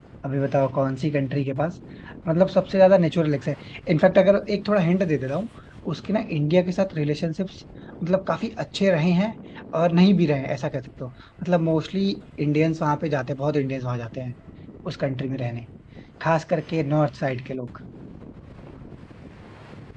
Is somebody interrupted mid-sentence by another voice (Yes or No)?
No